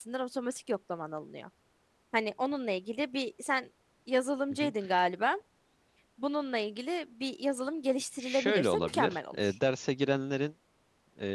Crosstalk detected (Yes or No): Yes